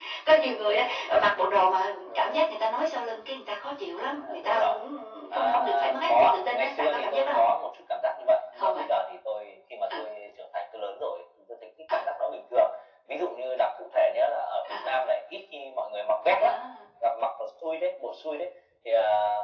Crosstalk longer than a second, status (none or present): present